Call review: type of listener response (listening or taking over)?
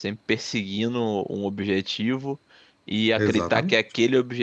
listening